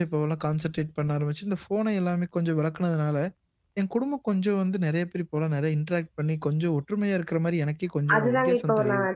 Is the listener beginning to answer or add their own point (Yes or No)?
Yes